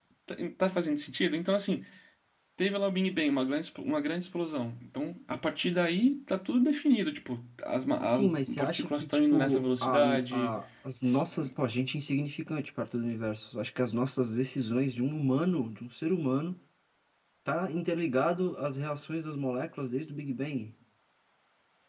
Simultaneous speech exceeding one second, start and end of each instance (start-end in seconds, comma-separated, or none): 8.0-10.6